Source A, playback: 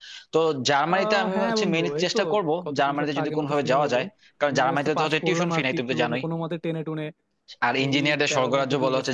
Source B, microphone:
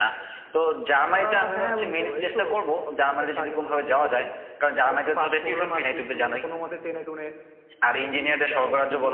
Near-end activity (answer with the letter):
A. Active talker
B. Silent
B